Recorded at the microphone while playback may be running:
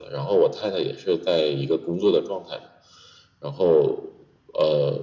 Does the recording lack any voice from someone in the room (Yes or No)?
Yes